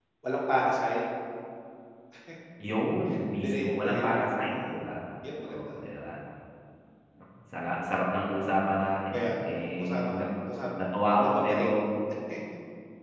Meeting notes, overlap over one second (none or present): present